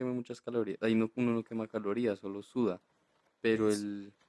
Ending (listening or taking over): listening